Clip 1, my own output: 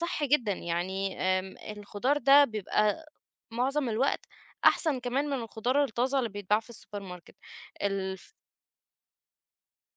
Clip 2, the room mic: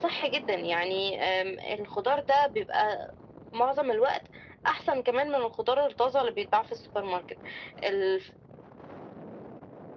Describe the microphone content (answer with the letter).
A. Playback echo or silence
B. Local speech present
A